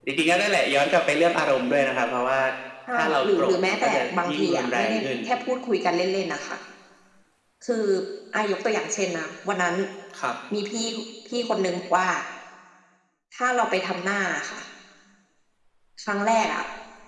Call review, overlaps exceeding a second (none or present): present